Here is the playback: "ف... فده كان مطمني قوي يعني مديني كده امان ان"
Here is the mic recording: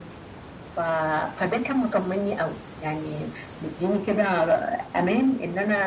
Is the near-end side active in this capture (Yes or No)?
No